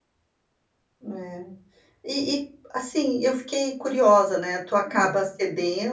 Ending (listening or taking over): listening